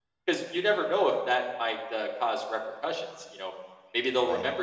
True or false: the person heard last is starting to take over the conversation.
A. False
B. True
A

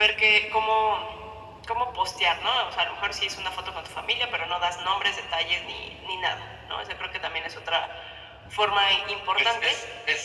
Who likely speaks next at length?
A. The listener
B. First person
A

